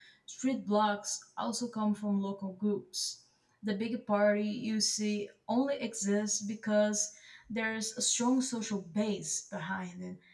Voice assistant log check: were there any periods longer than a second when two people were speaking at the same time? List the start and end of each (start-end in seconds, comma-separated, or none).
none